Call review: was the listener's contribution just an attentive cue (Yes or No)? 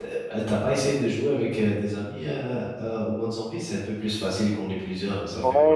No